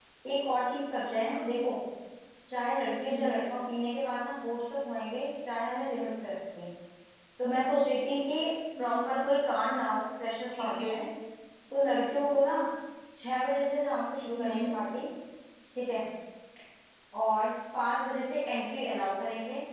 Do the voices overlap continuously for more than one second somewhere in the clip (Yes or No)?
No